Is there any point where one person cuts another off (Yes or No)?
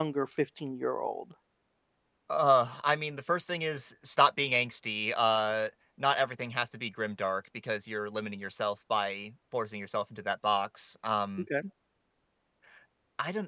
No